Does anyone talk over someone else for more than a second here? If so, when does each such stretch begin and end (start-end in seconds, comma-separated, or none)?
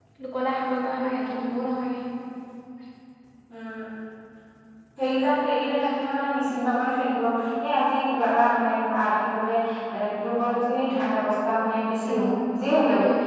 none